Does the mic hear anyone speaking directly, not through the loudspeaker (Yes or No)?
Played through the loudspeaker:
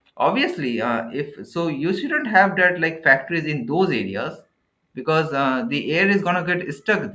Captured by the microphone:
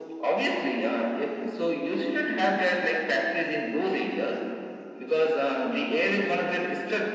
No